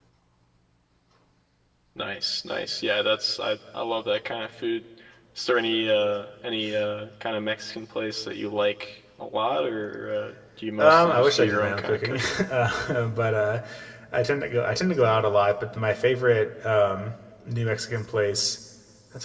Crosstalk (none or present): present